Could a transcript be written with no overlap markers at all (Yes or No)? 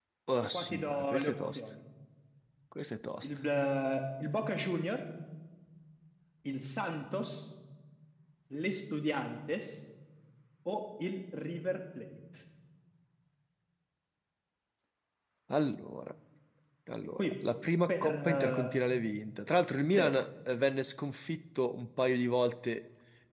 No